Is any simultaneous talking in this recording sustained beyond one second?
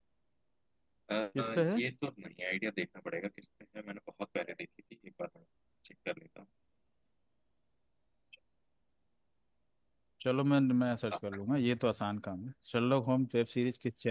No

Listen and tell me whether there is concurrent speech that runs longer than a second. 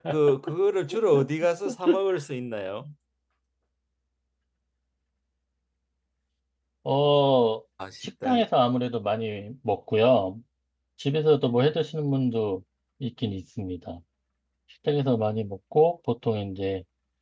No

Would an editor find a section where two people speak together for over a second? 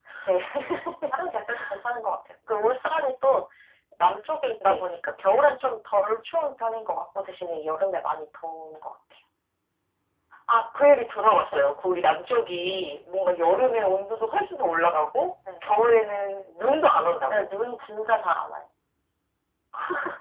No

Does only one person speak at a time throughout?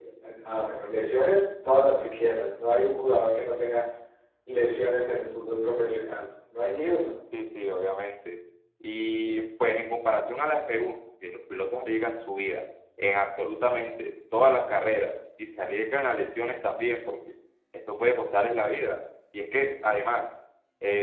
Yes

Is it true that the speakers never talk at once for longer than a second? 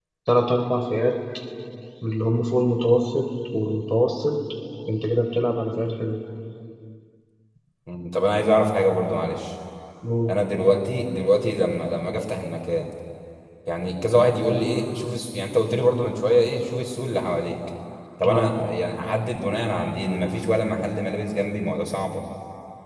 Yes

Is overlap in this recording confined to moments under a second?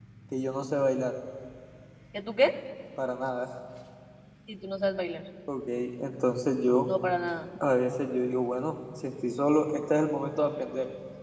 Yes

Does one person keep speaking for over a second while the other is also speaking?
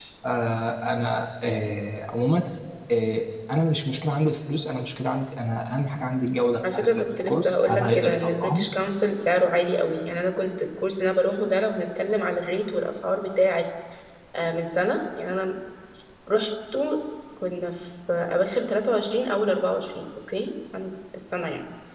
Yes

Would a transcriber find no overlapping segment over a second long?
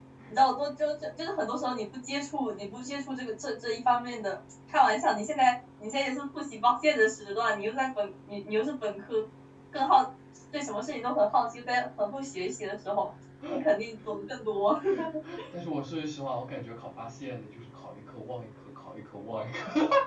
Yes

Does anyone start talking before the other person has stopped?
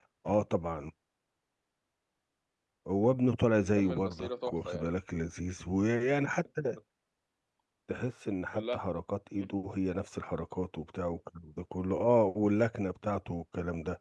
Yes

